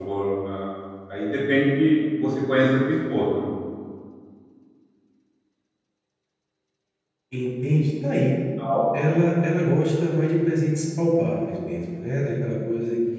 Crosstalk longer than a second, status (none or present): none